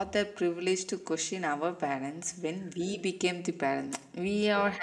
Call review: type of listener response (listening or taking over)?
listening